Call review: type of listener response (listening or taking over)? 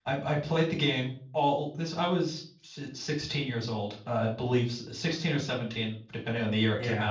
taking over